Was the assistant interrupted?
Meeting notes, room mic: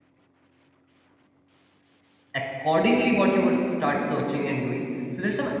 Yes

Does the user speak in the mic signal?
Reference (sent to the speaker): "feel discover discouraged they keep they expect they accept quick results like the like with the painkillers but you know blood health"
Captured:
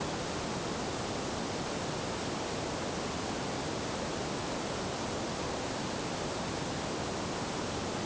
No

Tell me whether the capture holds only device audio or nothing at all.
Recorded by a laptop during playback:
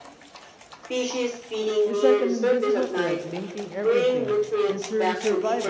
No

